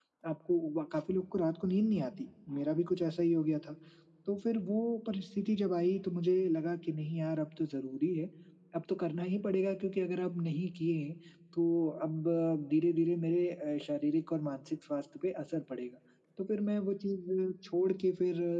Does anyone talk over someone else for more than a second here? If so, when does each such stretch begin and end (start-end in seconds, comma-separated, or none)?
none